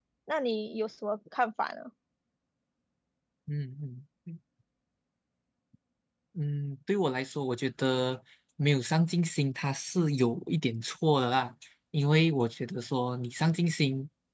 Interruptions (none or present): none